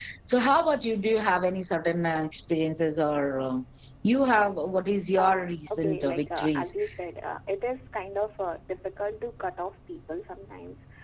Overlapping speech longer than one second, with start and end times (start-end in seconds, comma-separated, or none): 5.2-6.7